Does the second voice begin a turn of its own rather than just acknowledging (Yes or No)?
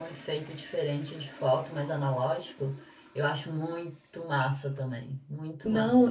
Yes